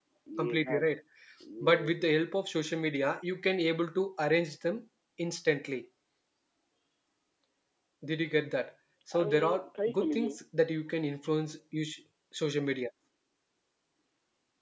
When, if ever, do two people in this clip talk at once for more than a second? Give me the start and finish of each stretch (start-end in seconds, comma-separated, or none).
9.1-10.4